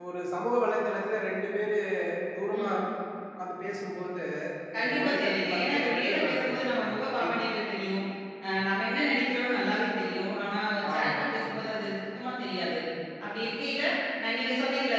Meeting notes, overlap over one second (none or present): present